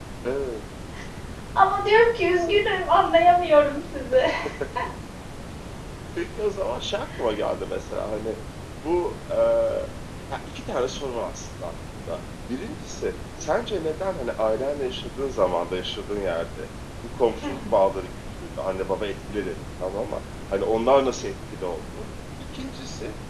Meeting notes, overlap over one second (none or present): none